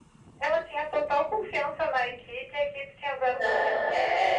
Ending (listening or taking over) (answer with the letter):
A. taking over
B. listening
A